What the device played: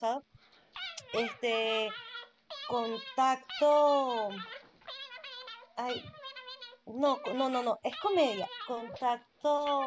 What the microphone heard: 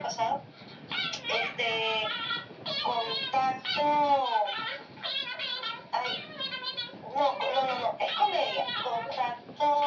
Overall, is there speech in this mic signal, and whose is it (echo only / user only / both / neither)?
echo only